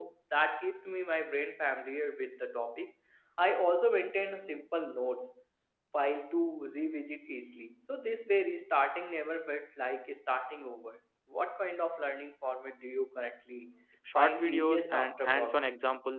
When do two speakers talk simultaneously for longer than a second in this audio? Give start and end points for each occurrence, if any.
14.2-15.7

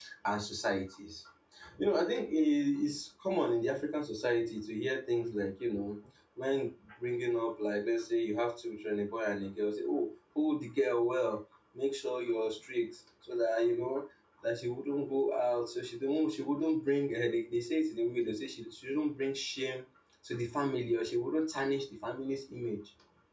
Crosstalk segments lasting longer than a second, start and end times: none

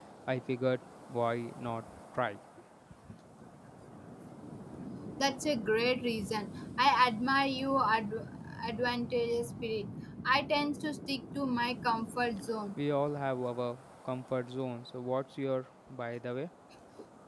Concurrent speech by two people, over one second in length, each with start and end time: none

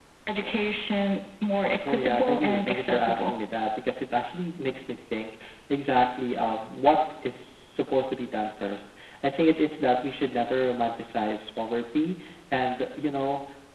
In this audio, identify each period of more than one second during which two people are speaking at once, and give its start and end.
1.9-3.3

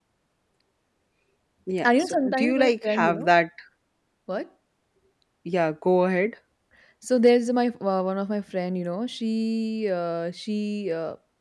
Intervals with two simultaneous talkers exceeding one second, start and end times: 1.9-3.3

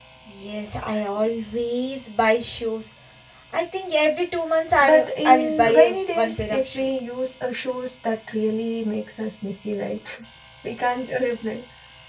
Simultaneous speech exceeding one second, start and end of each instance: 4.8-6.8

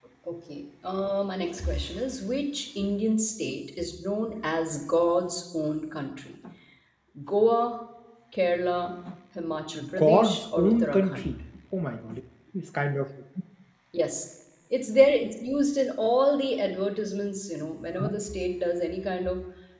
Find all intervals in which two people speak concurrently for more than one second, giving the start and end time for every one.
9.9-11.3

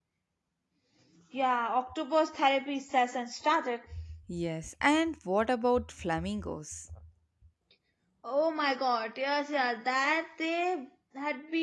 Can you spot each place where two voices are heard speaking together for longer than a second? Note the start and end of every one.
none

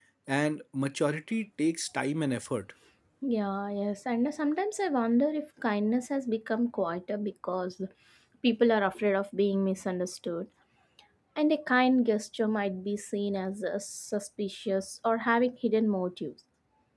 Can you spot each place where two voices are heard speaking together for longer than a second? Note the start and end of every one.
none

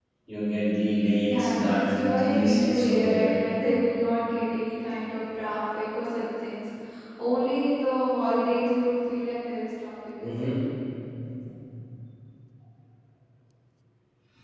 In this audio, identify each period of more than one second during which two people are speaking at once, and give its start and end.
1.3-3.3

